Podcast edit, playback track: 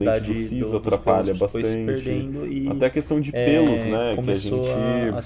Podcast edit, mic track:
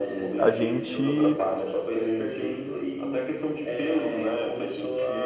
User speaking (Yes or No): Yes